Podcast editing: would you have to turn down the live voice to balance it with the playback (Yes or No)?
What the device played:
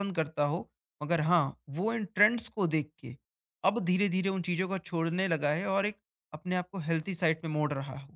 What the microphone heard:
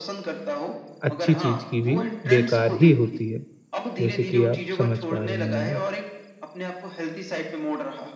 Yes